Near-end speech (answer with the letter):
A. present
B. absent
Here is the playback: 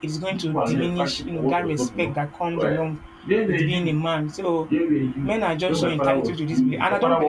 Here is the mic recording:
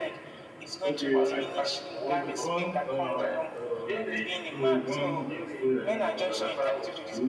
A